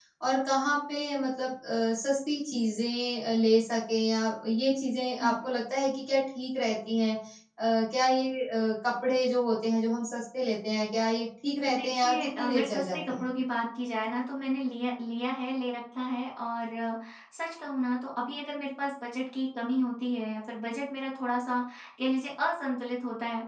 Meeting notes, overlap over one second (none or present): present